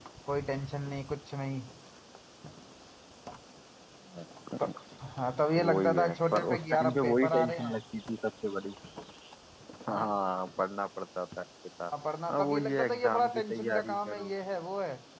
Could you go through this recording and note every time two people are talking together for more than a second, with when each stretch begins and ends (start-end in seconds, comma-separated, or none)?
5.5-7.8, 12.3-14.3